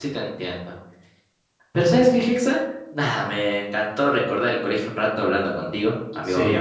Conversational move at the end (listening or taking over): taking over